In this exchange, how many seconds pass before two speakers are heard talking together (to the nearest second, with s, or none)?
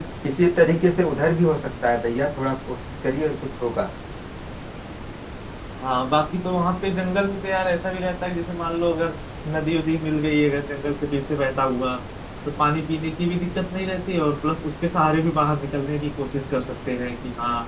none